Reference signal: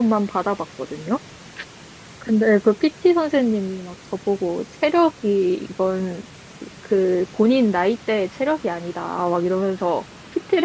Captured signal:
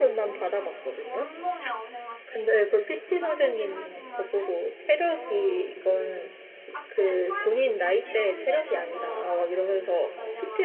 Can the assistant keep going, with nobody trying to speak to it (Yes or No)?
No